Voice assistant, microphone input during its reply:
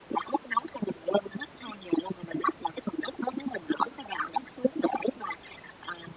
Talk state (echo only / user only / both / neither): echo only